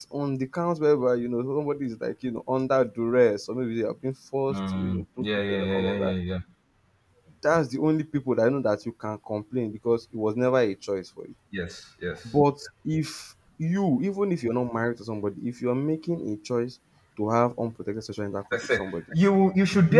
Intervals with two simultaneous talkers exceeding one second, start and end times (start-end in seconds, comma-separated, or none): 4.5-6.1